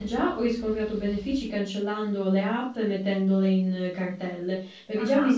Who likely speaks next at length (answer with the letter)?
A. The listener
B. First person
B